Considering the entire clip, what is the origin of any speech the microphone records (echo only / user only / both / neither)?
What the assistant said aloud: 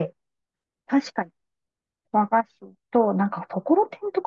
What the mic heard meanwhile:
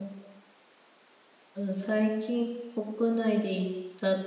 user only